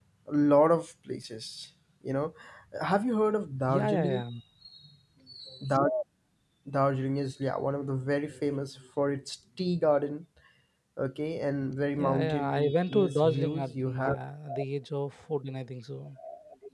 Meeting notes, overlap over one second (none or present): present